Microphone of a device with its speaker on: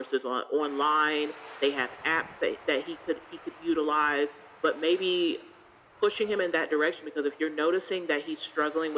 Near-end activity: none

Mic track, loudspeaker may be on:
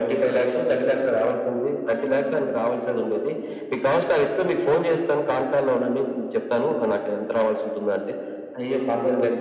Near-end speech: present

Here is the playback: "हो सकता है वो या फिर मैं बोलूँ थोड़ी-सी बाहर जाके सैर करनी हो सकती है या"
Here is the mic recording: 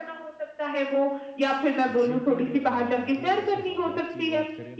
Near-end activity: present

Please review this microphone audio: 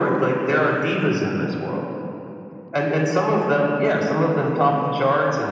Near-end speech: none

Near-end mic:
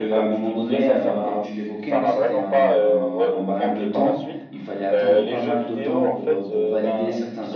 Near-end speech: present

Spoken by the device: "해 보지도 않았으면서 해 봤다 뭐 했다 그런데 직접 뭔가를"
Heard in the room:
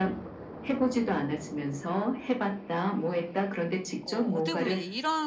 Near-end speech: present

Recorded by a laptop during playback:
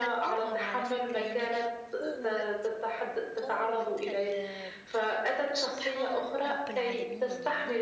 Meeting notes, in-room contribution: present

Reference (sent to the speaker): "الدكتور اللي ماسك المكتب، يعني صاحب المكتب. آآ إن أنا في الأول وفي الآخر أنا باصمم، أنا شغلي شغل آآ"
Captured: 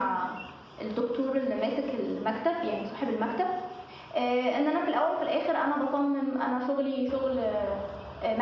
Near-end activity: none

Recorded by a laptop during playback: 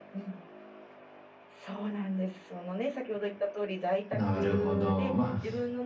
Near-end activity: present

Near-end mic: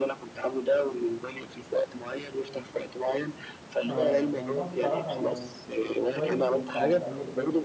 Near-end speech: present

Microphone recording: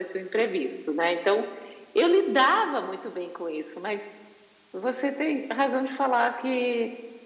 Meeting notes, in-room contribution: none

